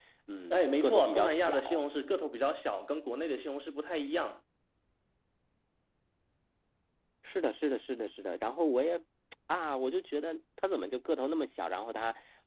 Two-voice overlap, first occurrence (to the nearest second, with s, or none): 1 s